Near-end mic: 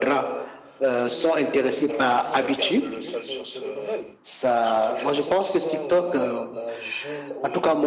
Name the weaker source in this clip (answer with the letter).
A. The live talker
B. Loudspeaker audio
B